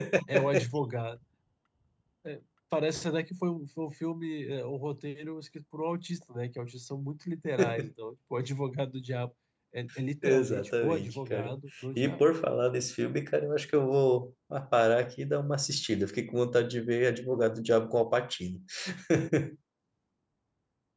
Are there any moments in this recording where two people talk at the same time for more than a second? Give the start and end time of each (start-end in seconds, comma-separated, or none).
10.2-11.5